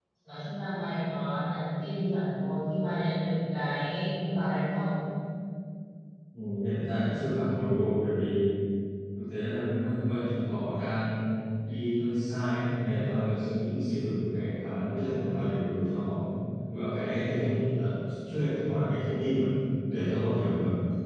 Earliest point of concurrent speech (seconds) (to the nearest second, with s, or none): none